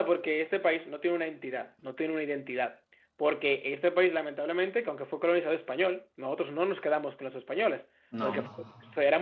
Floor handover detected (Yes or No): No